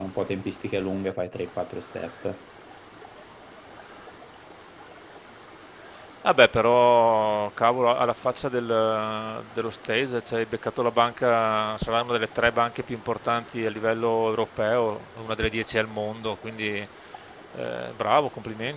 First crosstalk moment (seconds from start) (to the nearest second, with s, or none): none